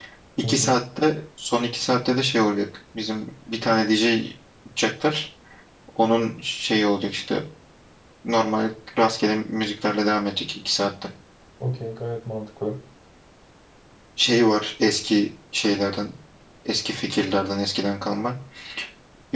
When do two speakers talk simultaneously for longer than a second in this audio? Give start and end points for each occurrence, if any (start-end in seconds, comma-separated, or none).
none